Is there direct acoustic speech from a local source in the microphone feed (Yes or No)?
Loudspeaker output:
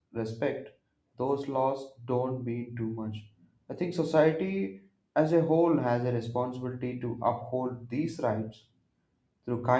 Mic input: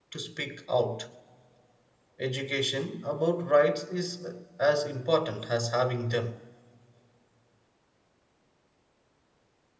Yes